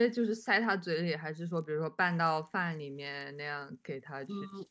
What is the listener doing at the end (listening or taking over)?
taking over